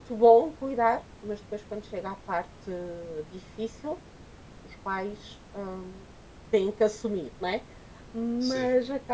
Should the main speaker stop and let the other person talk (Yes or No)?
No